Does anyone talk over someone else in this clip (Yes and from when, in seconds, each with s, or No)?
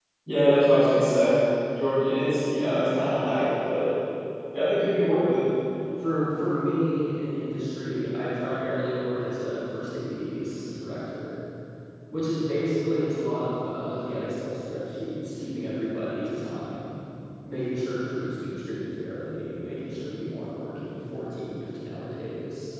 No